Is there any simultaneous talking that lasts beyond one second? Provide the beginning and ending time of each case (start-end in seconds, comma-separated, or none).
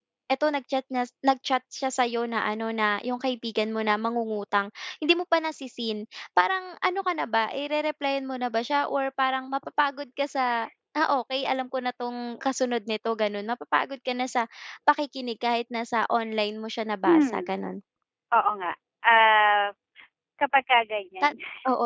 none